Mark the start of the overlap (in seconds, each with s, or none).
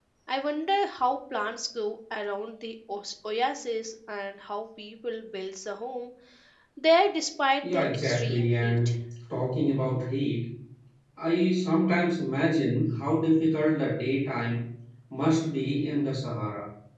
7.6 s